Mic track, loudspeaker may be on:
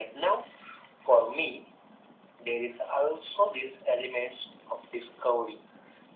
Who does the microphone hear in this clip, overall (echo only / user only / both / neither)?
echo only